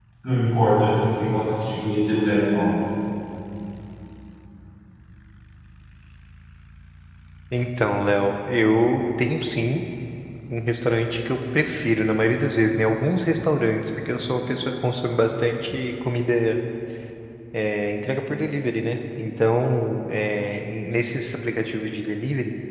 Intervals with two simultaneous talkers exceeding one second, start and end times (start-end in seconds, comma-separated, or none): none